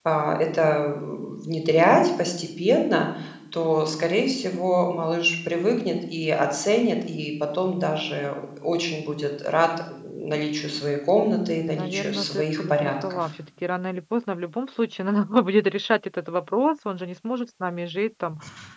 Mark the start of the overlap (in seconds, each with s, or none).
11.6 s